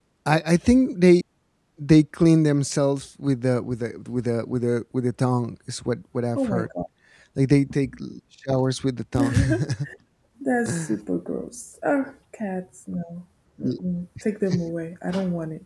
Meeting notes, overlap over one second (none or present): none